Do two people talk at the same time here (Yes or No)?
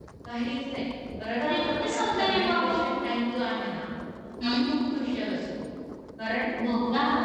Yes